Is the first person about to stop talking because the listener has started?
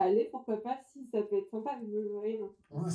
Yes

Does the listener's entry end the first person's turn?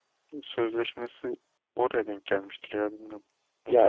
Yes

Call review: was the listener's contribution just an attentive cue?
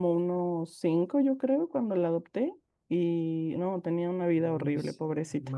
No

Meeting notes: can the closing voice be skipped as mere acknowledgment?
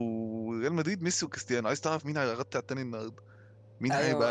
No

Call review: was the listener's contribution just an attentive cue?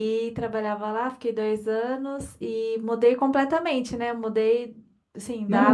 Yes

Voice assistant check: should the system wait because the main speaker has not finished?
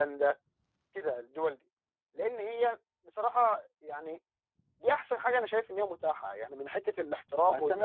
No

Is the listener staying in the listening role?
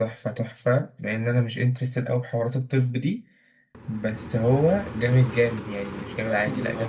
No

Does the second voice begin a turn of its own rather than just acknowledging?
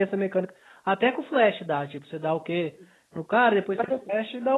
No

